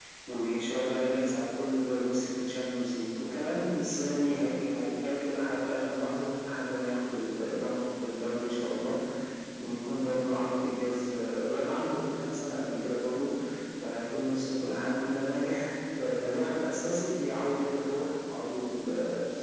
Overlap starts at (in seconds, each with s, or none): none